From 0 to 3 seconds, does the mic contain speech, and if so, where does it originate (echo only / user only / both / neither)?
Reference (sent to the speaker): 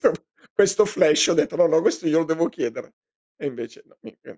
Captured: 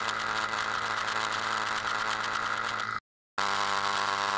neither